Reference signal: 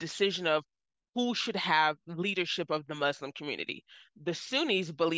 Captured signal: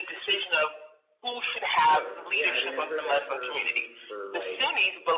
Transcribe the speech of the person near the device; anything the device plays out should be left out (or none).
Oh, yeah. I mean, I've heard that term used for like